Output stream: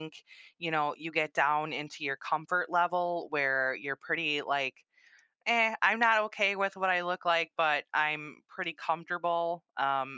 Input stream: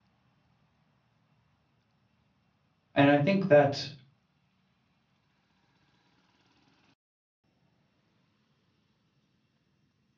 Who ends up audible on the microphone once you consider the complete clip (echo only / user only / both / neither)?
user only